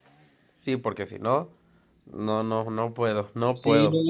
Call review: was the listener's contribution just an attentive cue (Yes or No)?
No